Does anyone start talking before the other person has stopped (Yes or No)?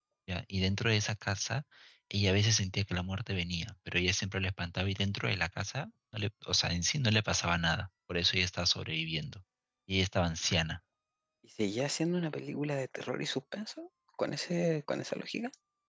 No